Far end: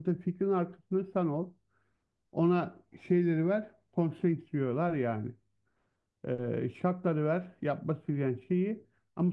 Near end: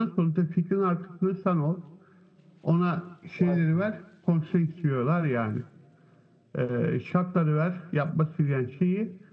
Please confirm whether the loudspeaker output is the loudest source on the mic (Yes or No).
Yes